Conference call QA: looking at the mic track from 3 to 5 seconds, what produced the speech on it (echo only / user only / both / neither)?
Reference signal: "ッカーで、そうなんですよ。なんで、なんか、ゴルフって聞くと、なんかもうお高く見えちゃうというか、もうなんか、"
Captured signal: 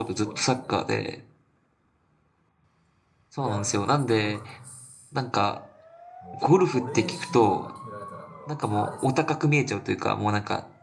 both